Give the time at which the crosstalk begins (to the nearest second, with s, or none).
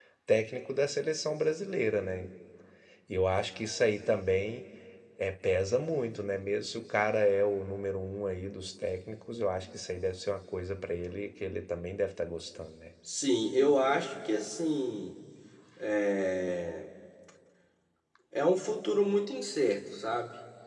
none